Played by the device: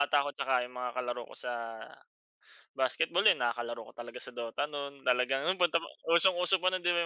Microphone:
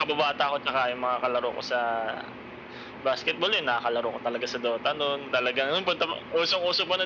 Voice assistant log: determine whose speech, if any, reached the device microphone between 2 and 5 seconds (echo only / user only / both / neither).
echo only